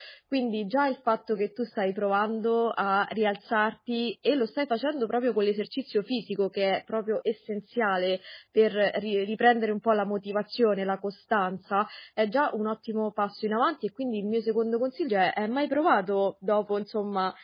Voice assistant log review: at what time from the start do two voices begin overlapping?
none

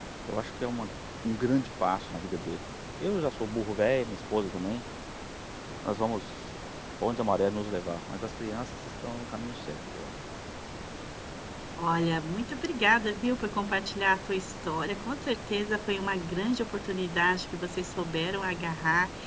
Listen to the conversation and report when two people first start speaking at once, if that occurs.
none

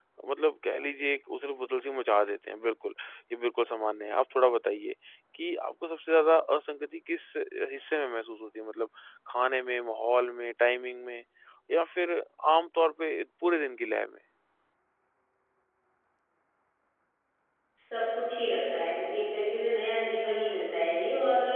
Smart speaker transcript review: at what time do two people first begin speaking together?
none

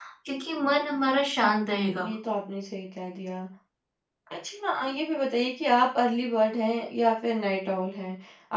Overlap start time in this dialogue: none

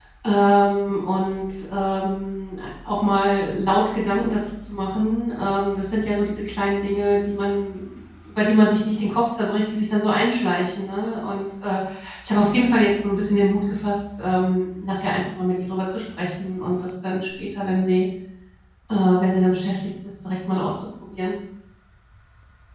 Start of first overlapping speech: none

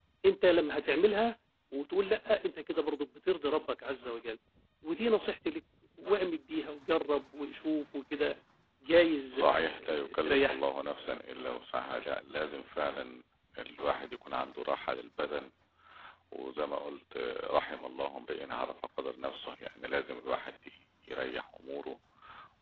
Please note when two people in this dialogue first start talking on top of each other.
9.3 s

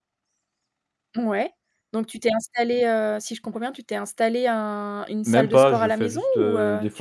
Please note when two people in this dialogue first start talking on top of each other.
5.2 s

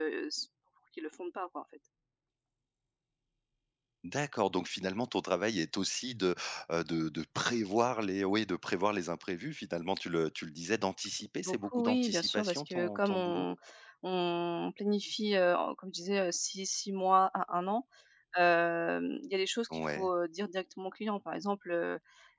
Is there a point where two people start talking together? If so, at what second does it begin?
11.4 s

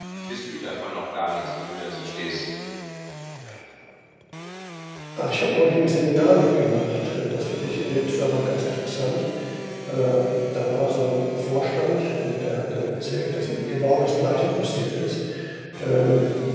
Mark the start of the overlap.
none

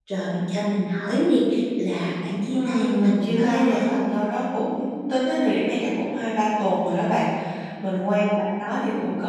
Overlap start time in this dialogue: 2.5 s

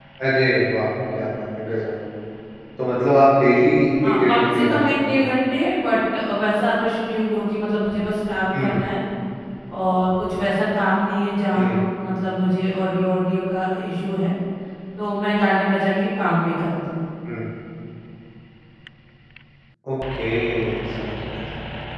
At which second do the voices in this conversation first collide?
4.1 s

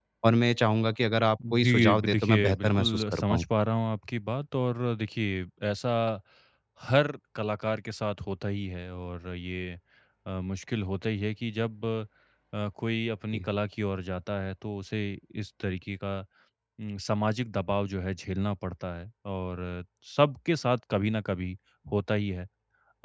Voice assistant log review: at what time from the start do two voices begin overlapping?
1.4 s

